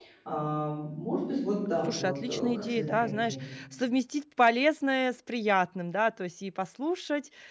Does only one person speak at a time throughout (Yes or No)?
No